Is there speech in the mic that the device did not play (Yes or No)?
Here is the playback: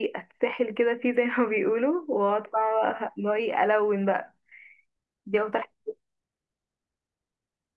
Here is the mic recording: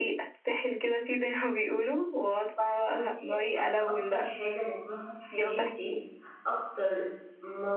Yes